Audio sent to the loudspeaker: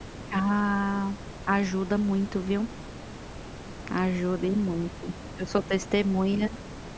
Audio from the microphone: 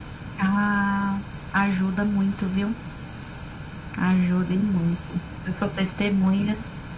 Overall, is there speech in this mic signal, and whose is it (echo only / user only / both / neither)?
echo only